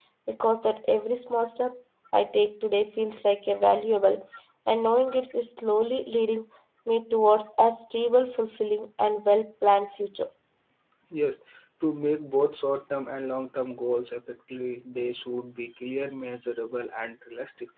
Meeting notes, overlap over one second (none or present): none